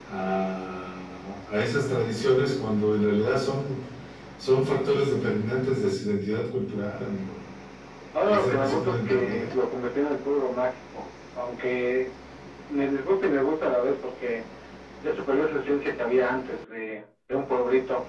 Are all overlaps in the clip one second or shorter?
No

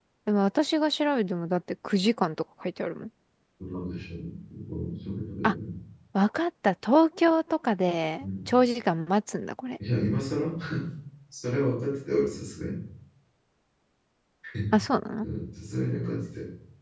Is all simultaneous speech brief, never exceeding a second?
Yes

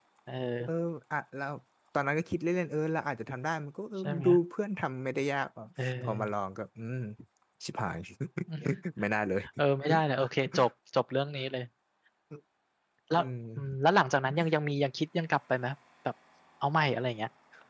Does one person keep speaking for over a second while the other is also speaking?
No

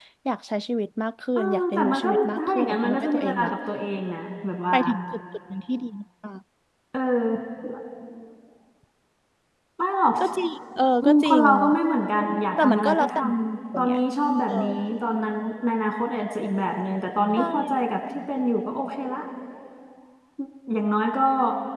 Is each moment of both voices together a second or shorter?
No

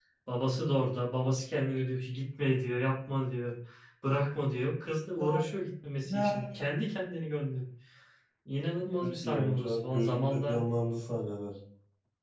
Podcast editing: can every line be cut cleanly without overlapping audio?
No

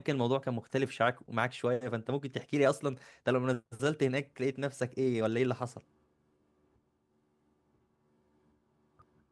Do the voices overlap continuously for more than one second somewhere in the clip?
No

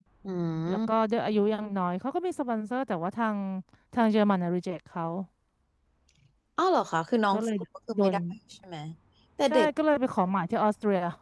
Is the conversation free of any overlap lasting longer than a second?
Yes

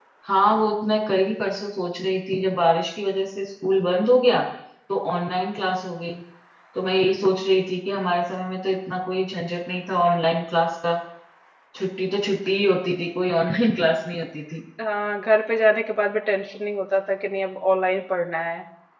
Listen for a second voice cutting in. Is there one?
No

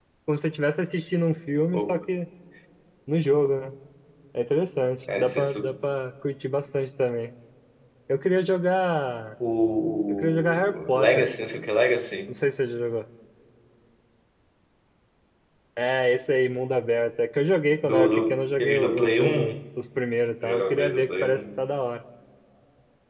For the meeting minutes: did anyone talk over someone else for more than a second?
Yes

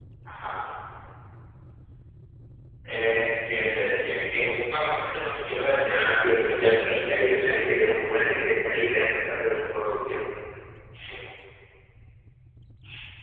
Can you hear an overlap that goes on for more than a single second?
Yes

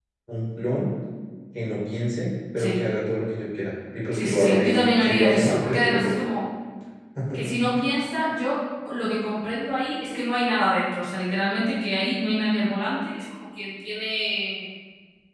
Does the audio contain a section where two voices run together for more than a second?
Yes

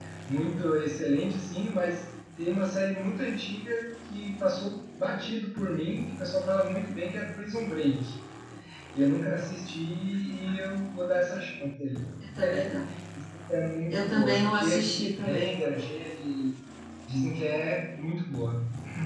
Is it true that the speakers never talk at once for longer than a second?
No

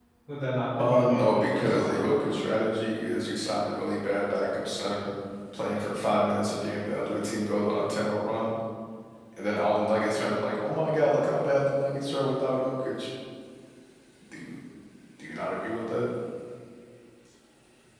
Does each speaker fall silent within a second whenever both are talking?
No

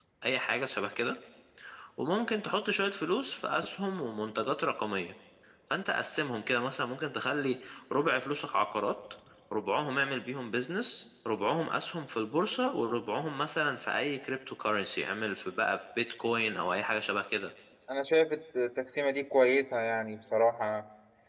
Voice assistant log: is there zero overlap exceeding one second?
Yes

